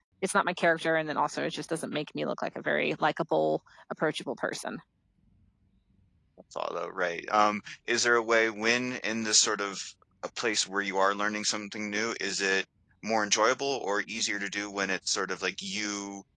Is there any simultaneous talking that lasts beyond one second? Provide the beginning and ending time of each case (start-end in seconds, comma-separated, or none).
none